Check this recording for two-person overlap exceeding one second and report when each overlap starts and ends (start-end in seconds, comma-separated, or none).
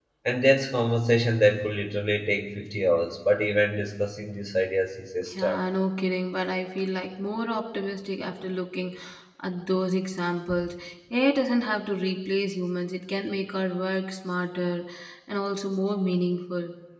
none